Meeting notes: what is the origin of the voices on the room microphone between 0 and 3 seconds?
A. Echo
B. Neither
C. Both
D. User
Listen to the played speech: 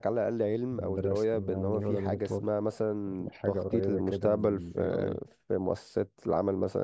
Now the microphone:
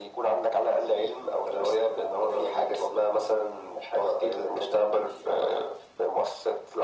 A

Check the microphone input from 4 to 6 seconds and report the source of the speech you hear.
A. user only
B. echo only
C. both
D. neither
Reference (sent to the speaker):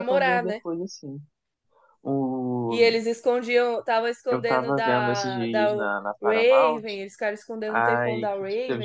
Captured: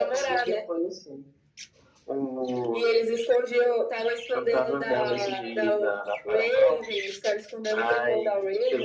B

